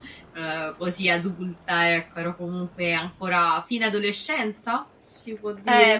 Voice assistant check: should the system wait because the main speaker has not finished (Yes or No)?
No